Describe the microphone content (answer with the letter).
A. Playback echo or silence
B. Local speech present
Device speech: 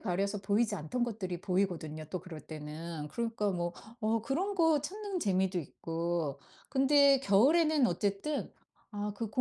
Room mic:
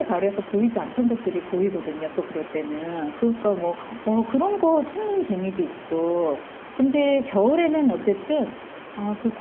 A